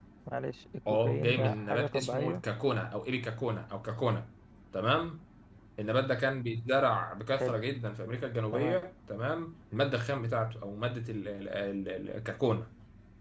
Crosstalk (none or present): present